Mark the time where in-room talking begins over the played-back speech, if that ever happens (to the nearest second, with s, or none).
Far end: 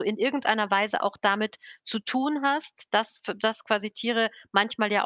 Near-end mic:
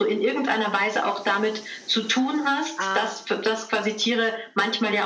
3 s